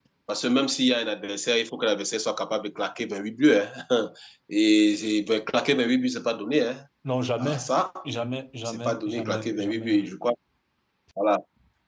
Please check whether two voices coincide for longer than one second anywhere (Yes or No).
Yes